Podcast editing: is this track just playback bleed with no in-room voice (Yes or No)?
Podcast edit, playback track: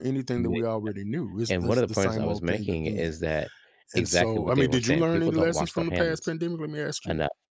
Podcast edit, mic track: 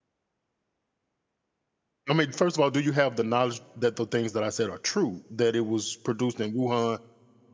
No